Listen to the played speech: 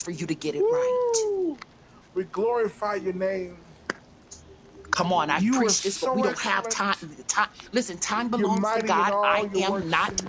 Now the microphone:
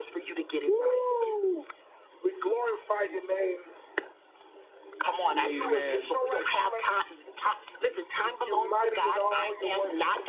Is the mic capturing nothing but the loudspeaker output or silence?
No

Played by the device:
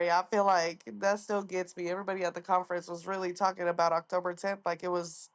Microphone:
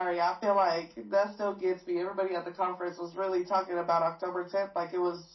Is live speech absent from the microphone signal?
Yes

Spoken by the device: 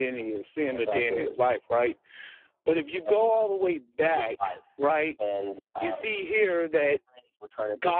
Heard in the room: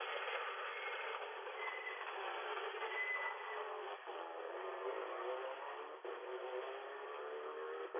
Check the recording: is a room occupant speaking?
No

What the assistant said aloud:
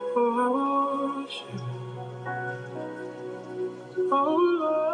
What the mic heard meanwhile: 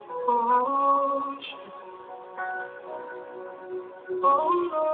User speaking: No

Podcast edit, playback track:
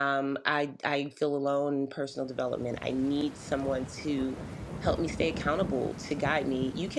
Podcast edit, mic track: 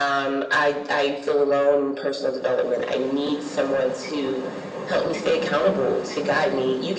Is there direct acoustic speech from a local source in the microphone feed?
No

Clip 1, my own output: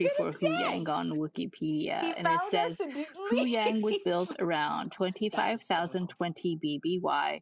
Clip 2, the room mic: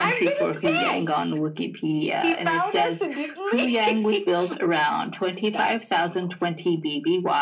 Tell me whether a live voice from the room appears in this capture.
No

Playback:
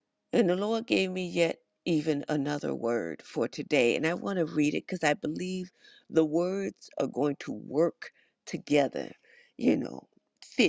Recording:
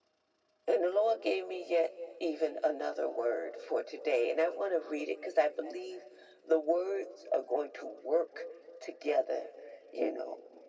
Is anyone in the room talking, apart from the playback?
No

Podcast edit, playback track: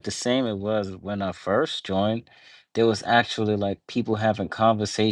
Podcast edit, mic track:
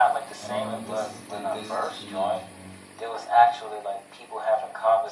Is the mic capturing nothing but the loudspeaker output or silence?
No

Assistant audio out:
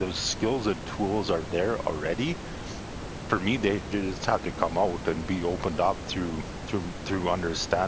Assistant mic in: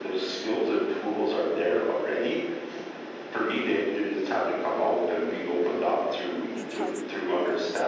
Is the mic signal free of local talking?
No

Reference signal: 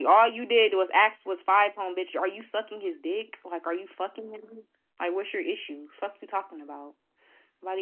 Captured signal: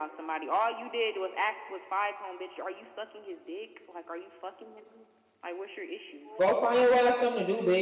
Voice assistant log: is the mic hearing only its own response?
No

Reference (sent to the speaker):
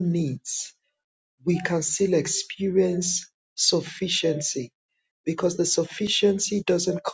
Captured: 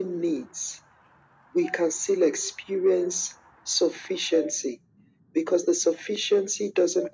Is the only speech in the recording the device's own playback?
Yes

